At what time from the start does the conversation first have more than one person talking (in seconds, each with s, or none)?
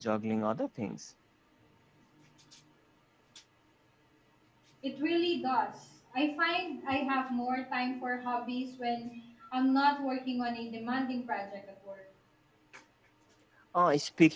none